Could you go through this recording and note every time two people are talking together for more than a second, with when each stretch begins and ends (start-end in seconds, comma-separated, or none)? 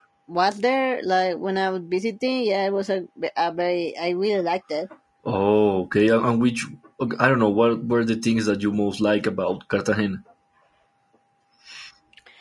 none